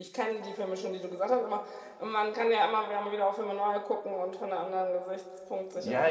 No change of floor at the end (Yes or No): No